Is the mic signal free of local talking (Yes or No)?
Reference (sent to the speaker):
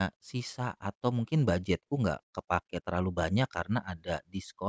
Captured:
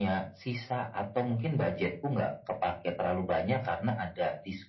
Yes